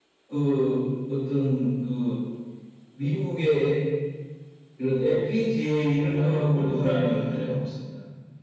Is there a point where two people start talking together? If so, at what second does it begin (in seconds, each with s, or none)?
6.1 s